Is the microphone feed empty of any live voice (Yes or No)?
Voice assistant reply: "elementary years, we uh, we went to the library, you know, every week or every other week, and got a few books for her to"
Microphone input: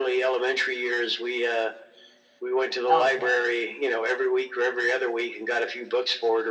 No